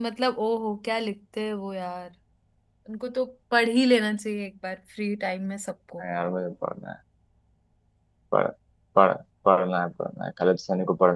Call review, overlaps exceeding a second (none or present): none